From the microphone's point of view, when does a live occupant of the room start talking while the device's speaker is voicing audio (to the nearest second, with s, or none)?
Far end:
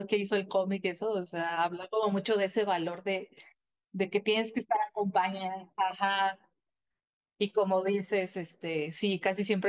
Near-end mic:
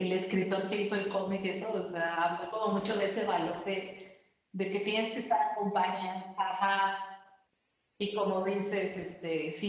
none